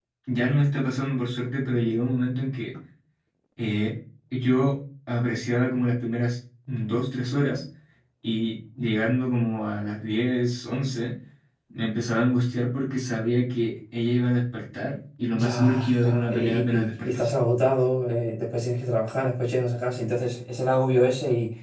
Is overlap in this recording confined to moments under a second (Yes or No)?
No